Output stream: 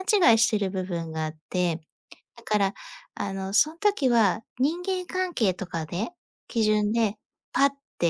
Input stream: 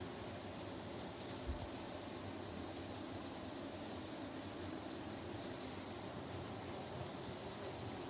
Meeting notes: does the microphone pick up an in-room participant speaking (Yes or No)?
No